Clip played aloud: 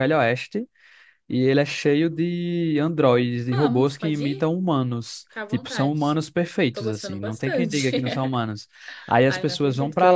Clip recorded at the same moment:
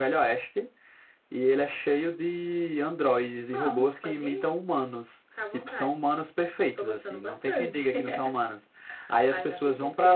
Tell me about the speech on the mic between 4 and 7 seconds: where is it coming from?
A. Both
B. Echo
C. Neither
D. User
B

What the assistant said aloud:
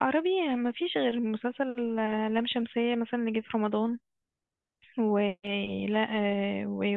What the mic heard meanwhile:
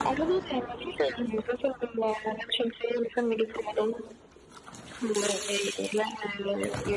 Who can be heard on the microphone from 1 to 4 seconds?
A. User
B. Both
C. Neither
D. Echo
D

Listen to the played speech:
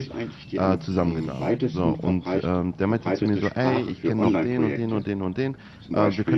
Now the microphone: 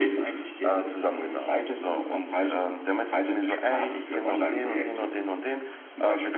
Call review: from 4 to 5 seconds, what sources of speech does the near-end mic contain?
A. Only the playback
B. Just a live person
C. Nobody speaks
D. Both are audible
A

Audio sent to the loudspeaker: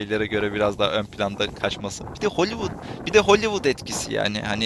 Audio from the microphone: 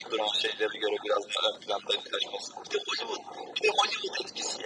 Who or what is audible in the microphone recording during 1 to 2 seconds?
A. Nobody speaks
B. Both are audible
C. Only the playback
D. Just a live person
C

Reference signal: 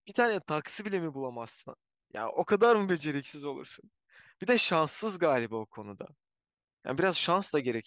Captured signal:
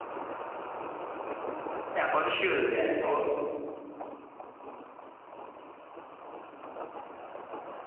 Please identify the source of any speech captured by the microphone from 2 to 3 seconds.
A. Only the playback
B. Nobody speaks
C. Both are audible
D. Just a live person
D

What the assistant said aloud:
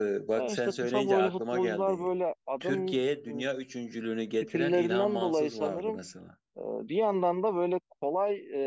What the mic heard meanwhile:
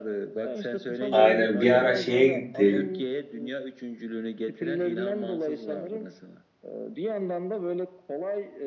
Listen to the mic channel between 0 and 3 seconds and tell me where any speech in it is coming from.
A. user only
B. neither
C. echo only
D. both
D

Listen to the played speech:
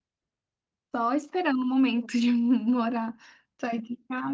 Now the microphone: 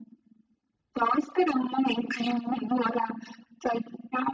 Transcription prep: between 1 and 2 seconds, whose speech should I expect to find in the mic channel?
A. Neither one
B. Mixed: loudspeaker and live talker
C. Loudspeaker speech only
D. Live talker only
C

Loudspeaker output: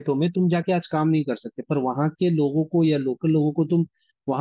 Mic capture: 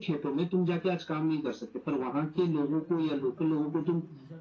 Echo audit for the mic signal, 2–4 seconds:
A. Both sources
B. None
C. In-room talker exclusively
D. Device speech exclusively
A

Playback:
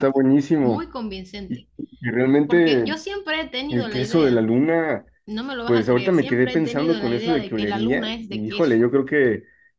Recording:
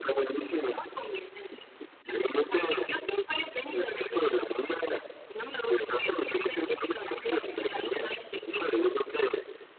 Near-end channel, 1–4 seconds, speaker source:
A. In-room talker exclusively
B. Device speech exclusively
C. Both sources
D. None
B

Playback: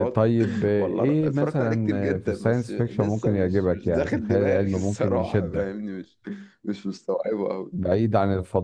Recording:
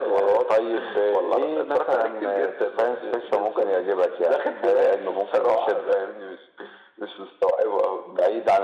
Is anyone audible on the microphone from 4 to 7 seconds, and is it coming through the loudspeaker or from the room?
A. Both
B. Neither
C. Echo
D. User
C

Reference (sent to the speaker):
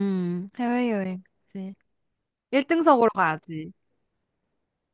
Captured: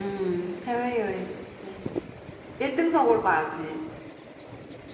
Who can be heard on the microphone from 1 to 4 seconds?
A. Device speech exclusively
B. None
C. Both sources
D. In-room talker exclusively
A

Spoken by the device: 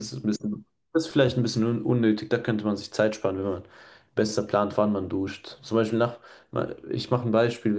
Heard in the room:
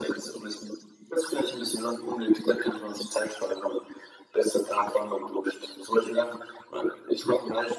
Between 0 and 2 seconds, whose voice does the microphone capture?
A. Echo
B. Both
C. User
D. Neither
A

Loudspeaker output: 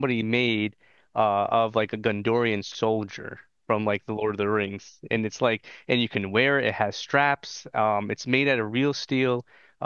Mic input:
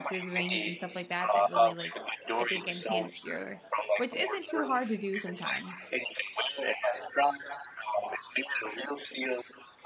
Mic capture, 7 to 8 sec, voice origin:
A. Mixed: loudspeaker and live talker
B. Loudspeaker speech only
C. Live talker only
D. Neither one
B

